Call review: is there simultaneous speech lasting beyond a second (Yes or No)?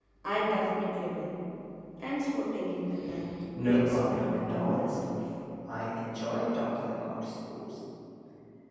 Yes